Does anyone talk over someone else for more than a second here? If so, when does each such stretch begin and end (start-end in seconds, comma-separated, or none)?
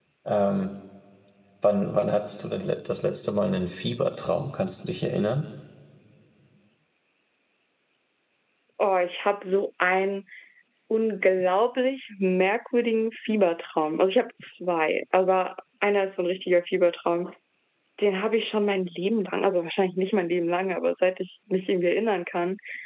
none